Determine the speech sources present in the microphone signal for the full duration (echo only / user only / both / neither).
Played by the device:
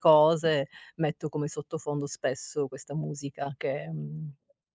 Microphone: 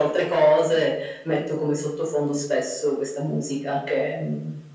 echo only